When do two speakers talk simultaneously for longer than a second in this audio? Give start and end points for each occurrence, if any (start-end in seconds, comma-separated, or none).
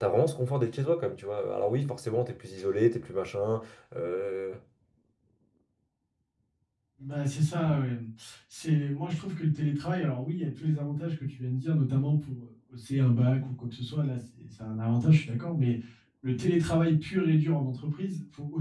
none